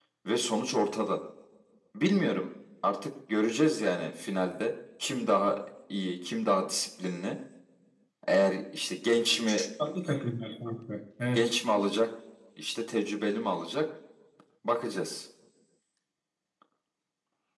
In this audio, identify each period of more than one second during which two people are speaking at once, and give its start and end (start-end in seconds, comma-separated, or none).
none